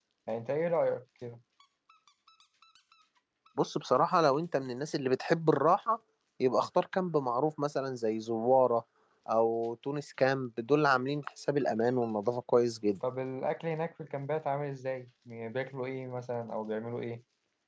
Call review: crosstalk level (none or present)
none